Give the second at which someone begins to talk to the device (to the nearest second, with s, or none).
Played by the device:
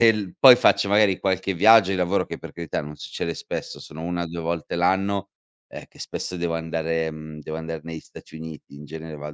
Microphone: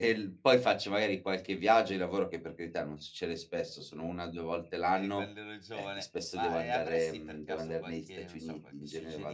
5 s